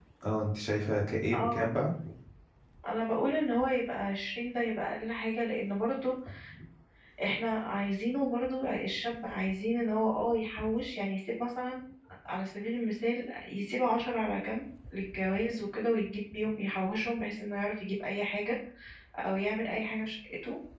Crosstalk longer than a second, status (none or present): none